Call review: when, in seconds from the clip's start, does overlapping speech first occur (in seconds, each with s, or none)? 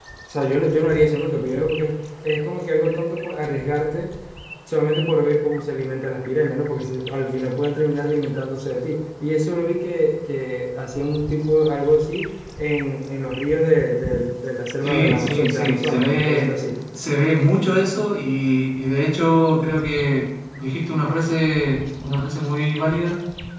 14.8 s